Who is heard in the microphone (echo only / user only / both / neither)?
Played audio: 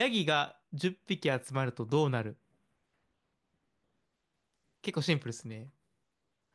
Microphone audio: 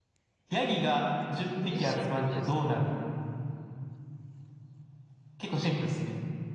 both